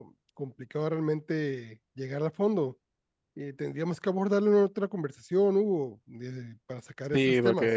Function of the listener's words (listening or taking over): taking over